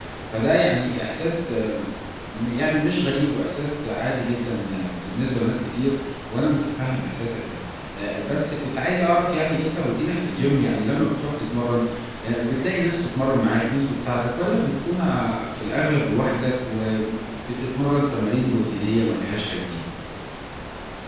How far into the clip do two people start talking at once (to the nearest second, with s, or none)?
none